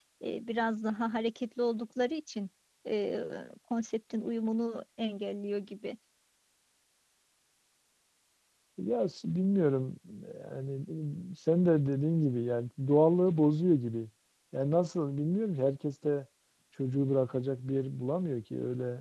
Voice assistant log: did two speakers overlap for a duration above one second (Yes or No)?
No